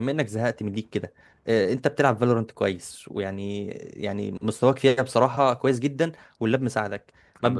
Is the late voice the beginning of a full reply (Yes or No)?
No